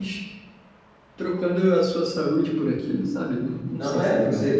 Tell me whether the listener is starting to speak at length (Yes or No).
Yes